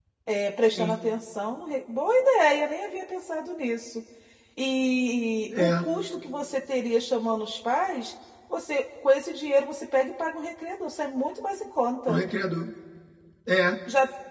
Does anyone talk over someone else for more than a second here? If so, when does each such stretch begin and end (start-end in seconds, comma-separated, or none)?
none